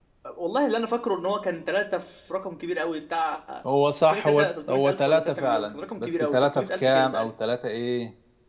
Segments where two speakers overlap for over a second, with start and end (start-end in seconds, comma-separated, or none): 4.0-7.3